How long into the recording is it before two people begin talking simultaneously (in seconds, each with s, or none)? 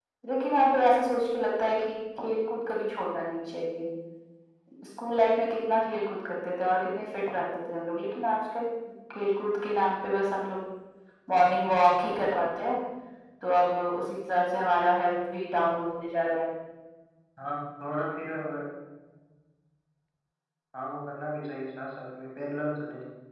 none